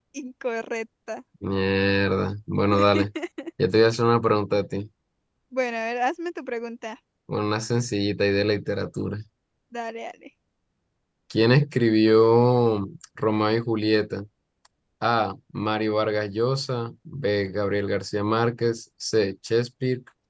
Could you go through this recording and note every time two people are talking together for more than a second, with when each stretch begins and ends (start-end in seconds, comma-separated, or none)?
none